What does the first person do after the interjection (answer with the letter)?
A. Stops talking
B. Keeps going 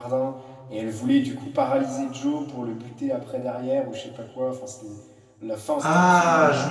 A